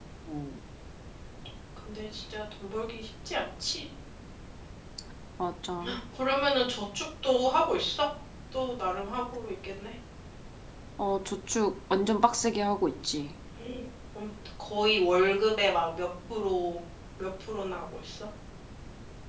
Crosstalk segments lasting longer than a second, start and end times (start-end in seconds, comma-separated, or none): none